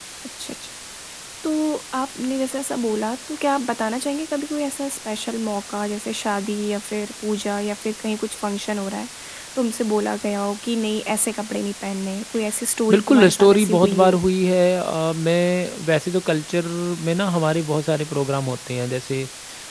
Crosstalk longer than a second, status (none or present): present